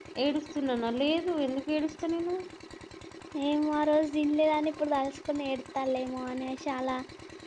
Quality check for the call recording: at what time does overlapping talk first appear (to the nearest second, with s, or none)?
none